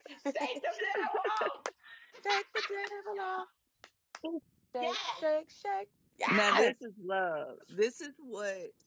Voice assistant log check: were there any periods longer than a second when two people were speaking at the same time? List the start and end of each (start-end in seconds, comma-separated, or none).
none